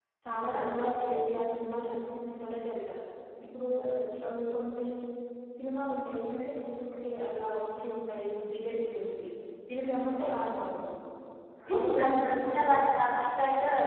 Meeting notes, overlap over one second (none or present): present